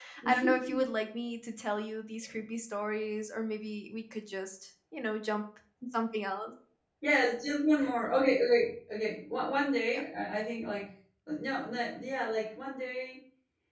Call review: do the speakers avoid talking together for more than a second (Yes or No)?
Yes